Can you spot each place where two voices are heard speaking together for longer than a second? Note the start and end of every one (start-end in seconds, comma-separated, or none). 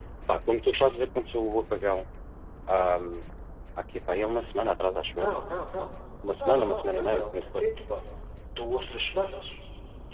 6.3-7.6